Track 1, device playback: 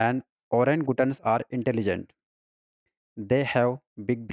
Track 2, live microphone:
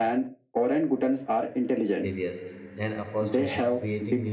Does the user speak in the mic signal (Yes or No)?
Yes